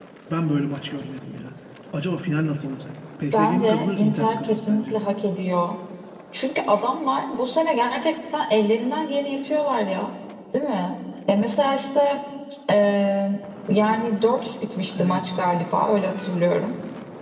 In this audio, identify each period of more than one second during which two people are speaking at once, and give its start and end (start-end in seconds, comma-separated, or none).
3.3-4.9